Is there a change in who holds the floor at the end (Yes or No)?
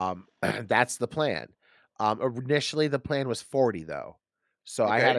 No